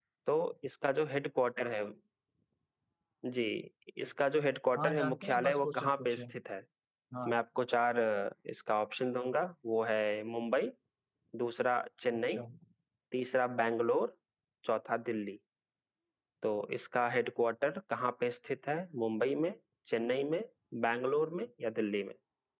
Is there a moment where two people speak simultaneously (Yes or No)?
Yes